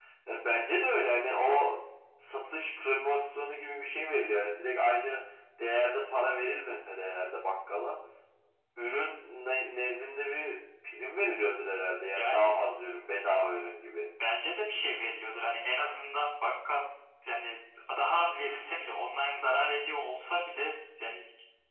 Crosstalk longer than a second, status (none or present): none